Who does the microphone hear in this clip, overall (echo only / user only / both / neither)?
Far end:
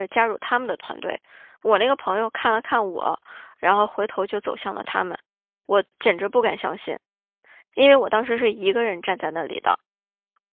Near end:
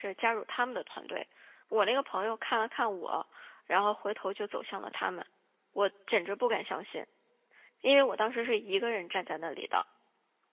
echo only